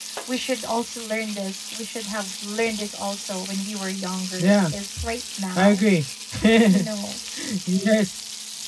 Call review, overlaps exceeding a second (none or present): none